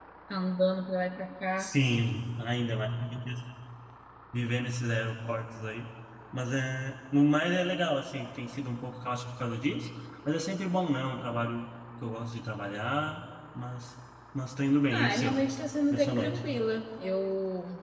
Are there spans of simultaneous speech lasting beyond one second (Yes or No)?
No